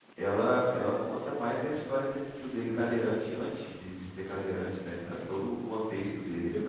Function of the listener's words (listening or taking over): taking over